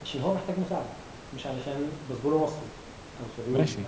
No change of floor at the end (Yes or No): No